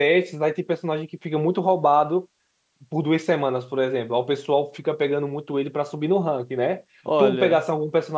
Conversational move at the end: listening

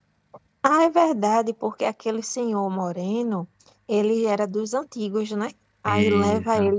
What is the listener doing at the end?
listening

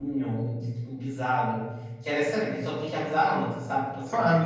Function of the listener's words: listening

